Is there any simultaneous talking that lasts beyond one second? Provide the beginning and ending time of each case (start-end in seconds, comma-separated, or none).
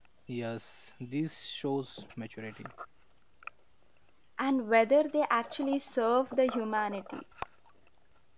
none